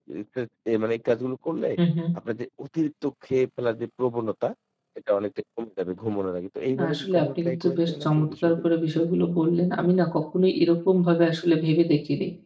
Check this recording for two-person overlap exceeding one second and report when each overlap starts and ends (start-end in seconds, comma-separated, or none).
6.8-8.7